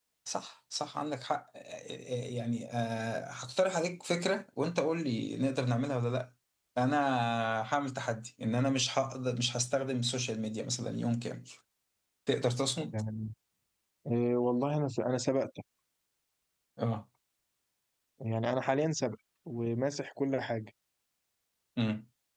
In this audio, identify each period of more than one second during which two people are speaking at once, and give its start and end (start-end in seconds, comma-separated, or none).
none